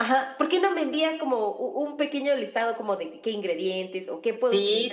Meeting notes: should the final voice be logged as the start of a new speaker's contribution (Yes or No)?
Yes